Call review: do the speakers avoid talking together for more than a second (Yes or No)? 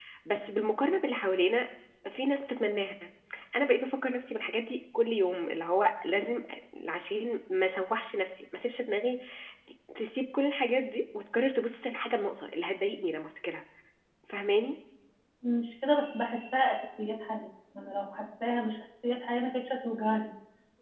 Yes